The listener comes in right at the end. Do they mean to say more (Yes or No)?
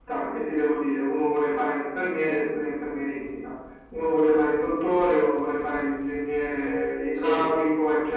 No